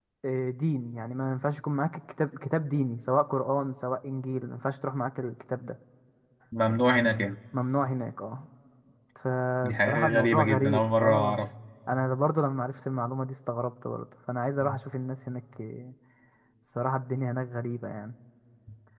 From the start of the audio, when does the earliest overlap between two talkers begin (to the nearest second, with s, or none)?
10 s